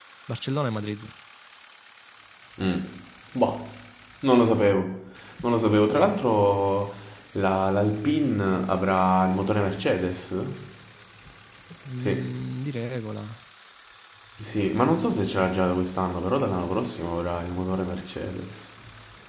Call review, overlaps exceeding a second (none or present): none